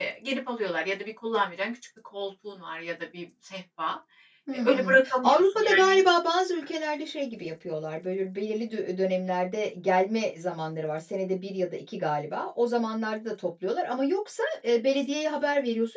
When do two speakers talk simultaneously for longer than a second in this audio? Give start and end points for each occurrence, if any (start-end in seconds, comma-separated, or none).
4.5-6.0